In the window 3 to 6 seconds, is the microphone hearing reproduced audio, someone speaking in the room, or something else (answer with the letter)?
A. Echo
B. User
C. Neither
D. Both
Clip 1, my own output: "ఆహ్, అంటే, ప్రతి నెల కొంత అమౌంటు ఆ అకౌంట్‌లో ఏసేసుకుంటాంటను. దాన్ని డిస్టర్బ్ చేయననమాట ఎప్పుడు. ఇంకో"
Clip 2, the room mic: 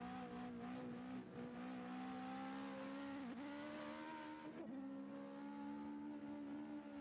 C